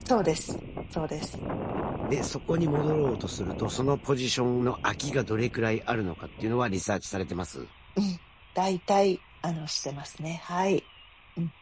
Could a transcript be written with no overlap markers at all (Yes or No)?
Yes